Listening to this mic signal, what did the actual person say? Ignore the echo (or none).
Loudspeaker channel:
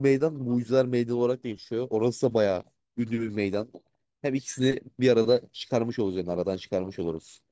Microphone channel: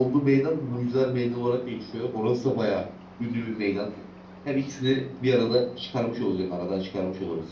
none